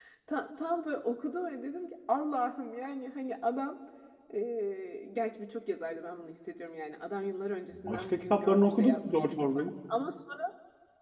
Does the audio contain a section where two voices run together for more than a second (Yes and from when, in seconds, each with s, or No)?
Yes, from 7.8 s